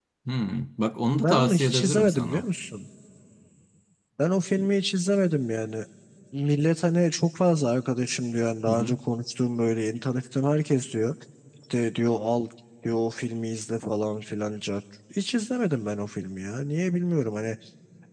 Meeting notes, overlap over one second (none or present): present